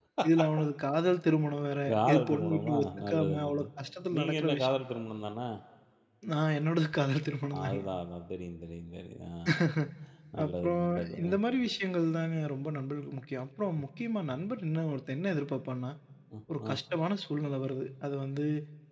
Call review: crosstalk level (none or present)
present